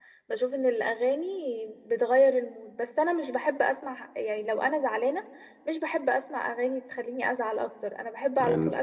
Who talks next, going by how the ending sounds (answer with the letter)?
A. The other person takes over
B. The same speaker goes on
B